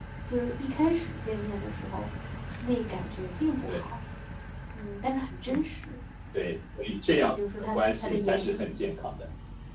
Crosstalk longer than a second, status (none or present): present